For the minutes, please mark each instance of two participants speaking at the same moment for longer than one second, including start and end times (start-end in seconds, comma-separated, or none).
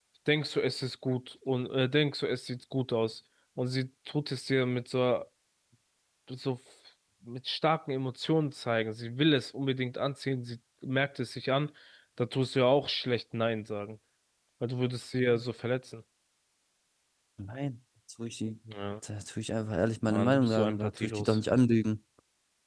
20.1-21.4